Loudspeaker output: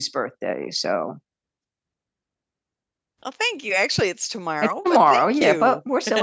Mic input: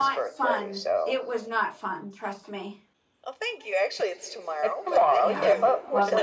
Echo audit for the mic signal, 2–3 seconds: user only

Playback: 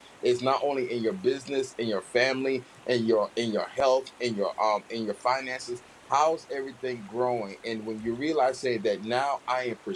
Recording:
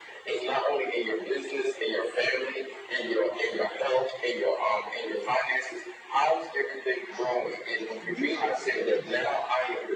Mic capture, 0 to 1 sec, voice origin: echo only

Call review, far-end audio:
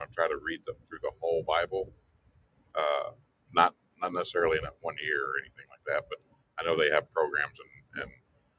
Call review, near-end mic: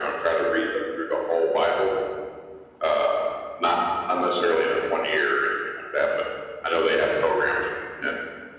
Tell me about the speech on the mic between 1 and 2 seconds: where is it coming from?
echo only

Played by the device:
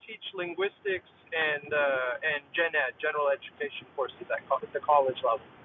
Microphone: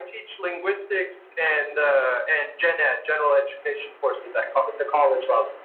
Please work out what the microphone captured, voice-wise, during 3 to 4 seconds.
echo only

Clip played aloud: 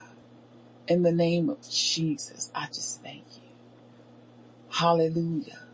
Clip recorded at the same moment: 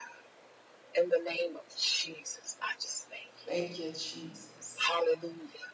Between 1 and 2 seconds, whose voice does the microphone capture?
echo only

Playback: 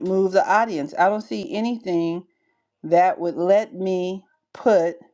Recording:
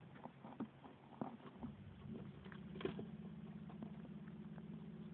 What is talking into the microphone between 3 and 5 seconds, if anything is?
neither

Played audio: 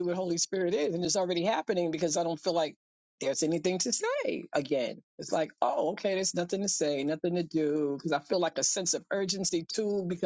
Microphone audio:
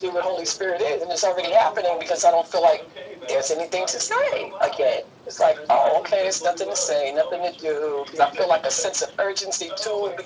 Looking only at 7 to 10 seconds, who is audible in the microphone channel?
both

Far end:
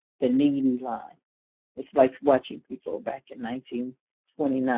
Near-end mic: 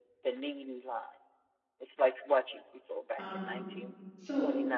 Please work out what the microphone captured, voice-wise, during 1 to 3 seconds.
echo only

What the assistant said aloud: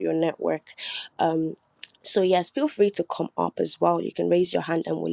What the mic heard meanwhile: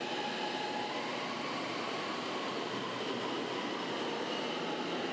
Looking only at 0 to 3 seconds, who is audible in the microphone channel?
neither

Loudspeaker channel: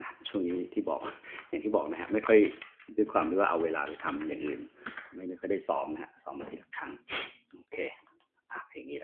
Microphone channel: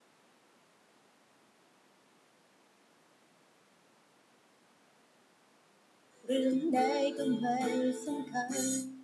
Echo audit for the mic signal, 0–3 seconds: neither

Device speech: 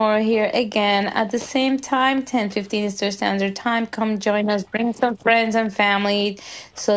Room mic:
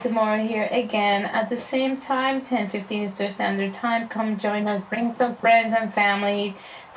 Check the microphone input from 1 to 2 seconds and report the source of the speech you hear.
echo only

